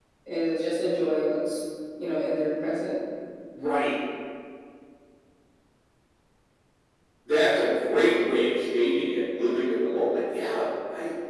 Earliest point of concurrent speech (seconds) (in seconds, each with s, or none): none